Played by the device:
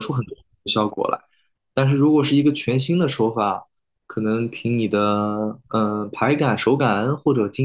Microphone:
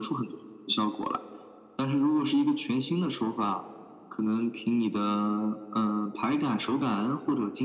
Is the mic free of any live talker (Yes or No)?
Yes